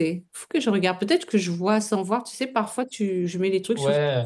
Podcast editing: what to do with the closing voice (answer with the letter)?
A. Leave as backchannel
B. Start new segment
B